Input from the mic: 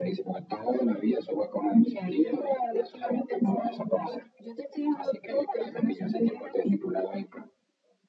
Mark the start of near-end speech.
none

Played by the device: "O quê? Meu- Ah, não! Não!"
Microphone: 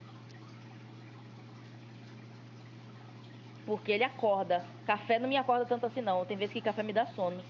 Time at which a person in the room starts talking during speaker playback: 3.6 s

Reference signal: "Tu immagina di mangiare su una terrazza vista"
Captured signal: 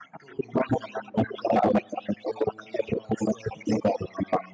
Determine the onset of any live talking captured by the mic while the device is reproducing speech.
none

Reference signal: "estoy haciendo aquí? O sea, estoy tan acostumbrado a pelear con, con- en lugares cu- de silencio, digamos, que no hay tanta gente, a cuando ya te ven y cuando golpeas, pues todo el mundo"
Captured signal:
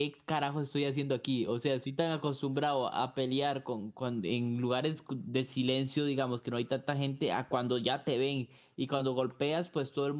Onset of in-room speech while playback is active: none

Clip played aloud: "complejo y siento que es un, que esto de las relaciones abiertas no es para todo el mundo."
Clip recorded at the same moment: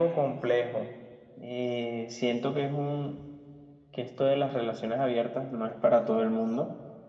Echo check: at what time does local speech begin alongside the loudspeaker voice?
none

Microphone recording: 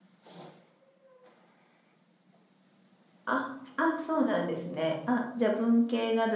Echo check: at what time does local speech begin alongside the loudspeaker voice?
3.2 s

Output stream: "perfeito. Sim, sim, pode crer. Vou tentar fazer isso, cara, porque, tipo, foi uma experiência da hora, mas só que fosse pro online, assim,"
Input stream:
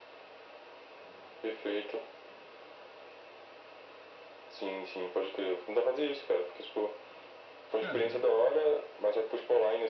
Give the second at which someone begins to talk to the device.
7.8 s

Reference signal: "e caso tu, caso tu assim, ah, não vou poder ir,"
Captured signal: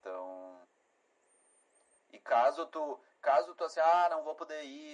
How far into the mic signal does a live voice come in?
none

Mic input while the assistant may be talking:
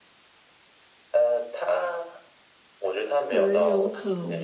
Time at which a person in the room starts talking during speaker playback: 3.2 s

